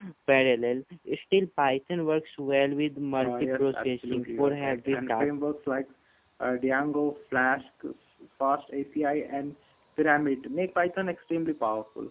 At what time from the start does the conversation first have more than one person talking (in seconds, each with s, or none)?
3.1 s